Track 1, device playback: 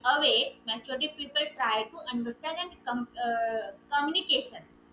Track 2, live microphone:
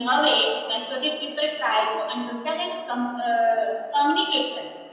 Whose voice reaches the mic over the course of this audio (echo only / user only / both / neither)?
echo only